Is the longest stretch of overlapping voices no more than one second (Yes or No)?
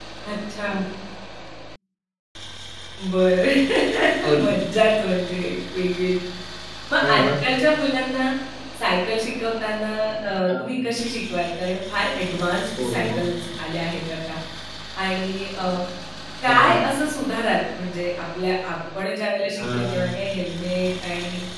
Yes